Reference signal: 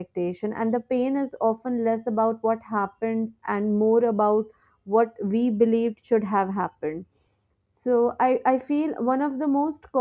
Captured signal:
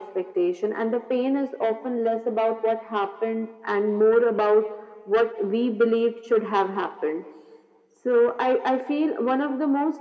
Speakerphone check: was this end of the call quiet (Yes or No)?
Yes